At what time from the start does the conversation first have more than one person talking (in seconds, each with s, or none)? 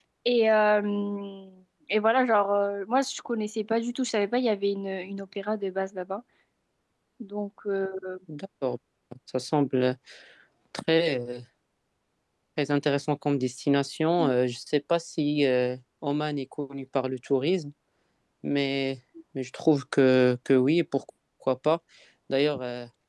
none